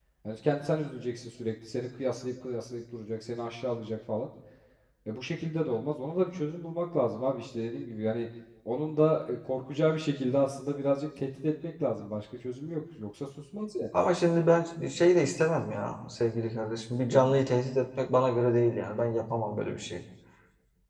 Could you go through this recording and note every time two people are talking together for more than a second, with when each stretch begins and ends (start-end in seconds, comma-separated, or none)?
none